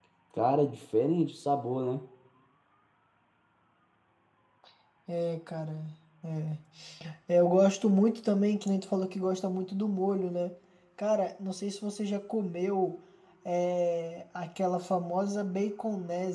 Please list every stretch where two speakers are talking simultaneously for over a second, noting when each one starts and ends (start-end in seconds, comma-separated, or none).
none